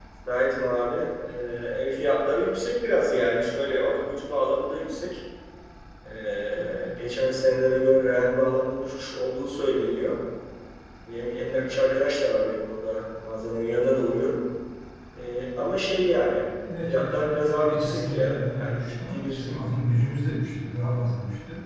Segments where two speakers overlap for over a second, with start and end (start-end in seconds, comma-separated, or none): 16.9-19.6